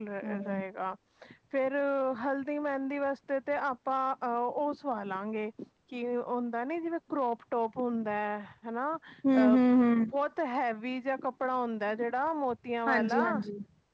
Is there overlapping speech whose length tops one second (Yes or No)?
No